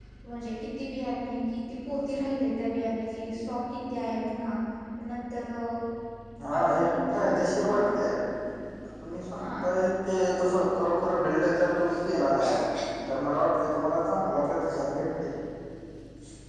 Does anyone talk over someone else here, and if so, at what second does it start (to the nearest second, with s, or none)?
7 s